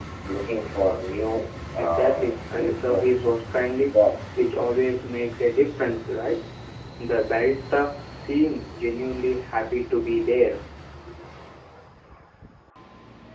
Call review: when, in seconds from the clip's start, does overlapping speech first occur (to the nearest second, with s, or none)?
2 s